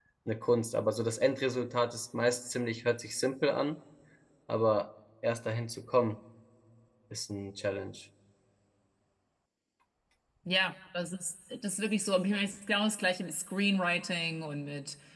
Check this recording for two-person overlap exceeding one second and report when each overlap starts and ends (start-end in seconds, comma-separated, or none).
none